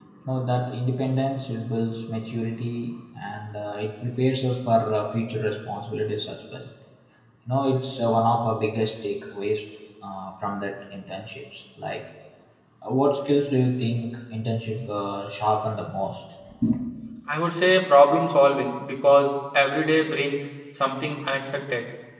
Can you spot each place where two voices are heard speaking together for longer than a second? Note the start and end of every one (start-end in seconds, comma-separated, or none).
none